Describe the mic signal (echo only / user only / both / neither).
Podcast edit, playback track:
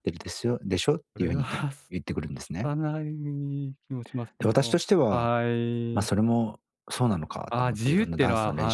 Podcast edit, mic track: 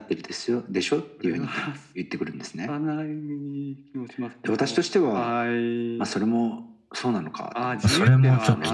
both